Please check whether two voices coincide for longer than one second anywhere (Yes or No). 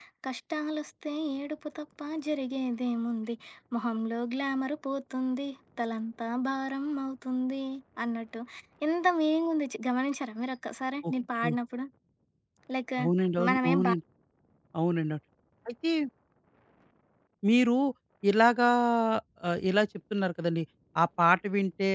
No